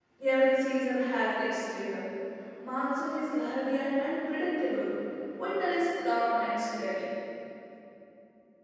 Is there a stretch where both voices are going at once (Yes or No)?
No